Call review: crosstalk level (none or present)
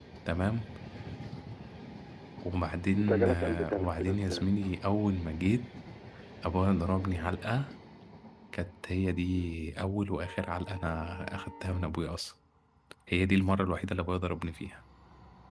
present